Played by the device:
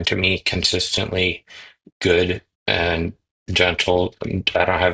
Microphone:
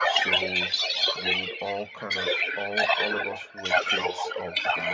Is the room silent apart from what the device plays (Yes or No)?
No